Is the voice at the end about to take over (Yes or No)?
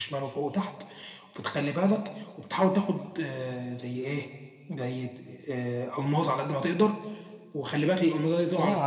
Yes